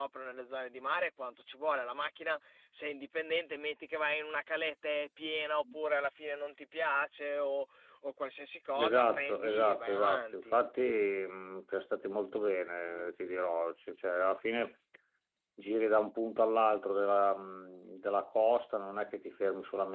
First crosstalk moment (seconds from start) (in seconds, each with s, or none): 8.8 s